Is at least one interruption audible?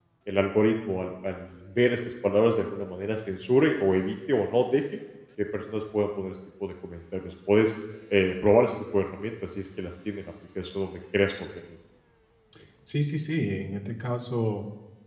No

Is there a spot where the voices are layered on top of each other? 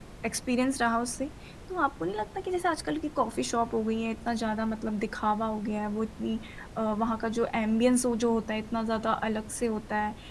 No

